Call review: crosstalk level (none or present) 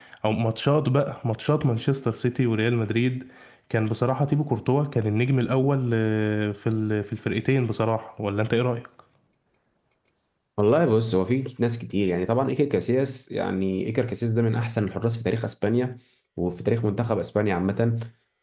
none